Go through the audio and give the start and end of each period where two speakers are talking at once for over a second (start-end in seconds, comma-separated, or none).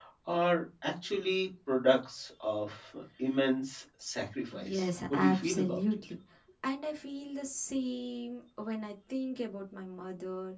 4.6-5.8